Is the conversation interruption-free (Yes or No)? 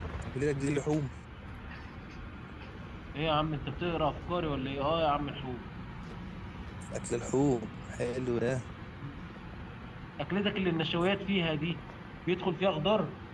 Yes